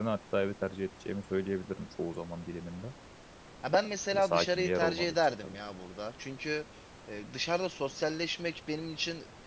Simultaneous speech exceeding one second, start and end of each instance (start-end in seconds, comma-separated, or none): 4.1-5.6